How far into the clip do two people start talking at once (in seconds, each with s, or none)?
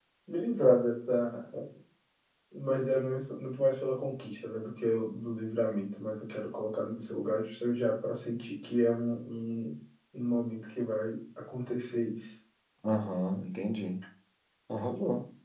none